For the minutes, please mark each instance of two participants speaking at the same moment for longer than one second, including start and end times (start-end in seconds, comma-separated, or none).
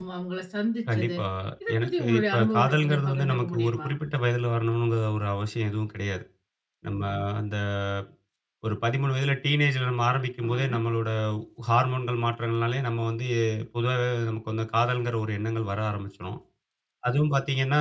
1.8-3.9